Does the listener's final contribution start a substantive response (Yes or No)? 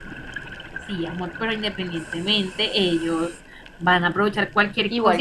Yes